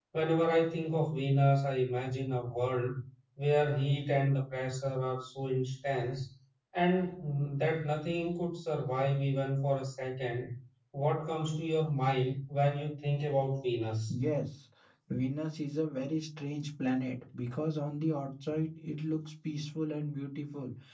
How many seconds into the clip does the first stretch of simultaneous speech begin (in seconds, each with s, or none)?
none